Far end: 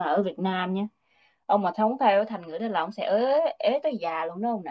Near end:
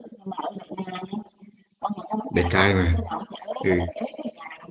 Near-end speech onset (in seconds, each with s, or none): 2.3 s